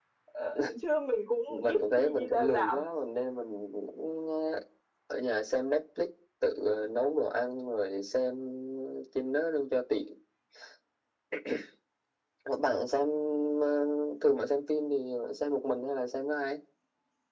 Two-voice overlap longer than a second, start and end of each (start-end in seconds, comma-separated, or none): 1.5-2.8